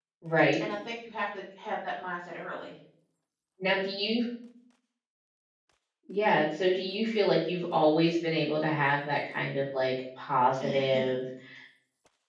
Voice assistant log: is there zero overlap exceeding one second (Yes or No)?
Yes